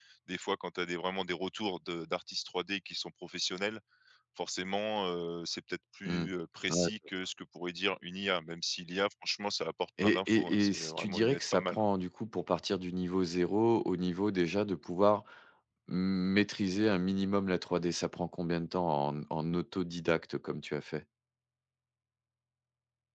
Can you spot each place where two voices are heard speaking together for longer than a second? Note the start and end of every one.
10.0-11.9

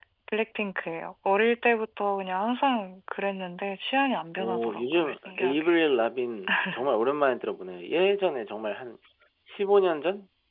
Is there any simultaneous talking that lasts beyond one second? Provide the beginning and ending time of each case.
4.4-5.8

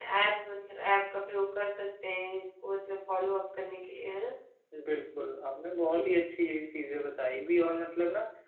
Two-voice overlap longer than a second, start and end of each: none

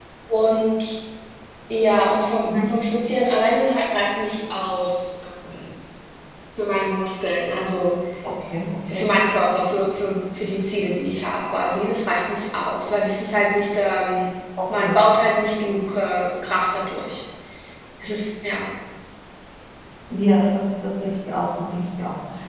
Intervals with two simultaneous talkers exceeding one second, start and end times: none

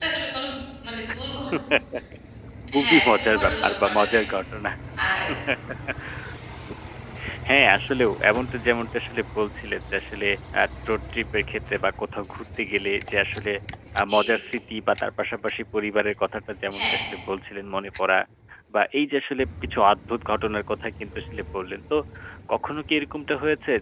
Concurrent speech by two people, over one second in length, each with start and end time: 2.8-4.2

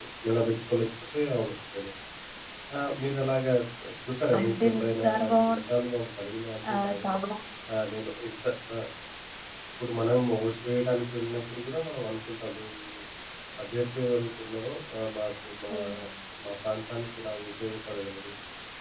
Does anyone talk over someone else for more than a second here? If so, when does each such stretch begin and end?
4.4-5.6

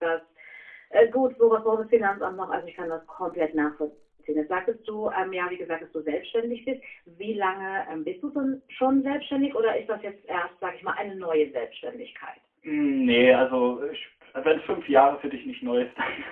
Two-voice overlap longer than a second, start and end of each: none

